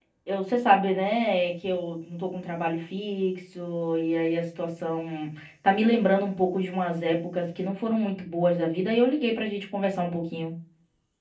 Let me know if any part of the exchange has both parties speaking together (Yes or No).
No